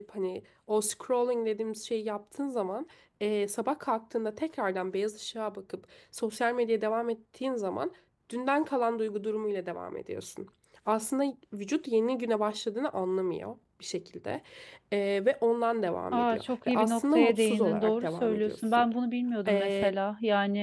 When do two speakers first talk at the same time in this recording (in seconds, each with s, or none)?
16.1 s